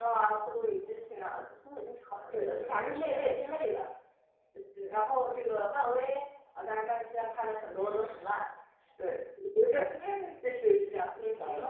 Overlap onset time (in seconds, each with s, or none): 2.3 s